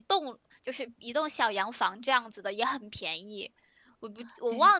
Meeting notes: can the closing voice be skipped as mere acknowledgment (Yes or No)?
Yes